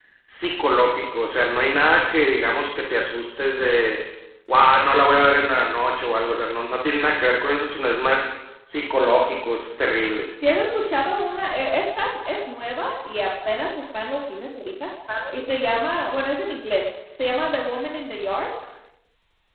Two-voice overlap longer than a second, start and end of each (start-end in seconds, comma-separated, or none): none